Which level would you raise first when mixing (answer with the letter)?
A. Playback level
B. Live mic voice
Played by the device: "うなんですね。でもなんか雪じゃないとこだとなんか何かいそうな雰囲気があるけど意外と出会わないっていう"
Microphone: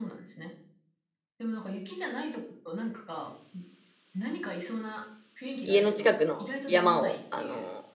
A